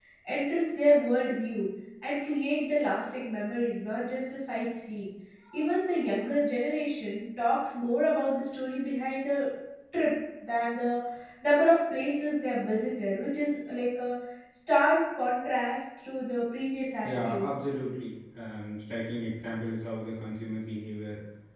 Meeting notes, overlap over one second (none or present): none